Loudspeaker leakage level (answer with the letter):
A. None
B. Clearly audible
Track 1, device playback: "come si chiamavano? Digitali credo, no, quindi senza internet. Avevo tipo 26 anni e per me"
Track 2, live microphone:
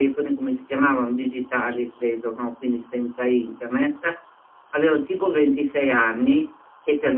B